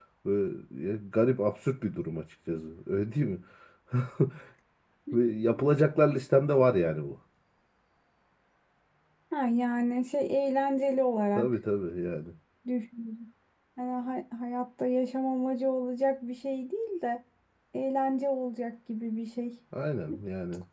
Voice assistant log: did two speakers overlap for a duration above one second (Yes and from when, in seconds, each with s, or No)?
No